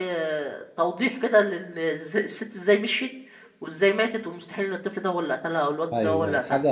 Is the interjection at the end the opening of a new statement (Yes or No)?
Yes